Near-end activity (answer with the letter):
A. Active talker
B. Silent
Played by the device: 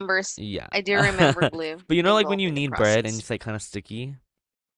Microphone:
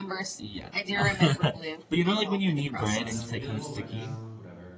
A